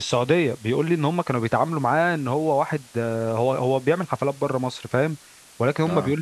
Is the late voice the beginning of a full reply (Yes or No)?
No